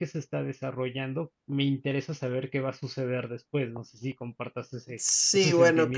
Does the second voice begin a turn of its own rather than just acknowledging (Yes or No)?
Yes